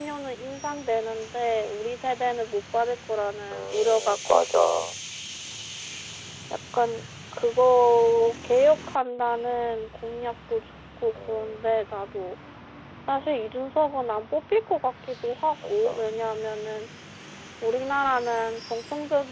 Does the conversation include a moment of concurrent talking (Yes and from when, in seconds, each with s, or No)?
Yes, from 3.5 s